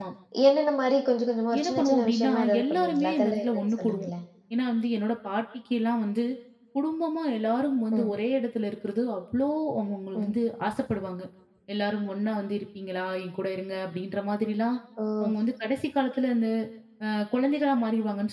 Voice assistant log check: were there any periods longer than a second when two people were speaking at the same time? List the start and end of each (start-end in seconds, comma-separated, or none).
1.6-4.1